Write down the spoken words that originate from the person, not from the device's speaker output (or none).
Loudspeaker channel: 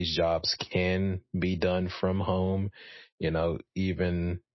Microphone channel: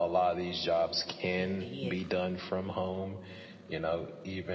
It did.